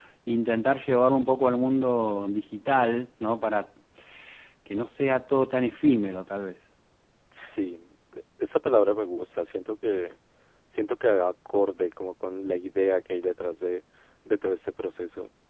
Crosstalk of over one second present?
No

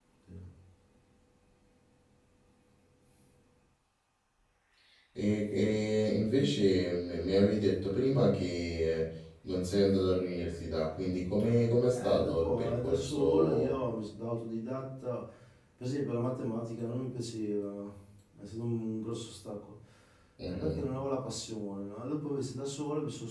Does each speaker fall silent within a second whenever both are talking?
No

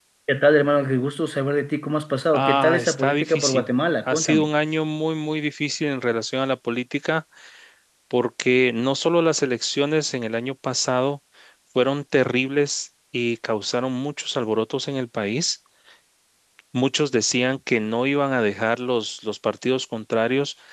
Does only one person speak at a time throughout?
No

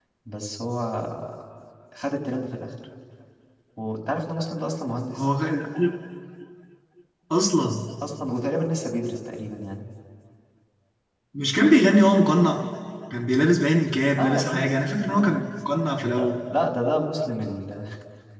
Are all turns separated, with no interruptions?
No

